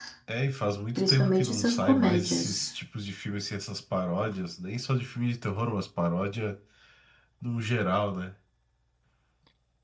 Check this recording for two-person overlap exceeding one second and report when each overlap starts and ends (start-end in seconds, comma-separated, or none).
1.0-2.7